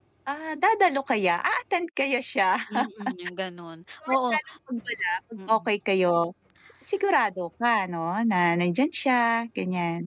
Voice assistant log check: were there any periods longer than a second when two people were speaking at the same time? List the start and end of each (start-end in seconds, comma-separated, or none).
none